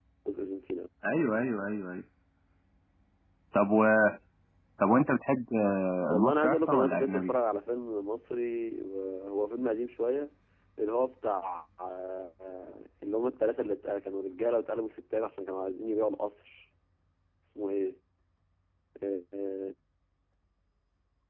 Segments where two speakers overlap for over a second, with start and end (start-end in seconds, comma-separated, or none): 6.0-7.3